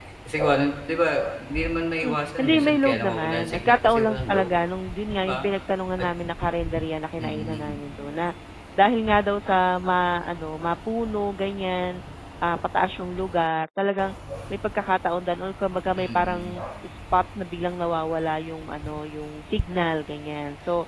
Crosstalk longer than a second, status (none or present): present